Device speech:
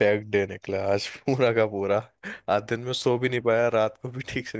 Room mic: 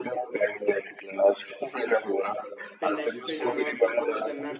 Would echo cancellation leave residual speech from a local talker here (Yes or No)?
Yes